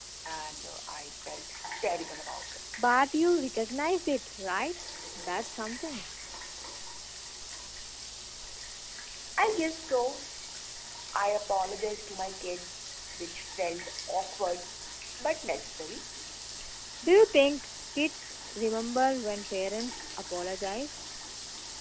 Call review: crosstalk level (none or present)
none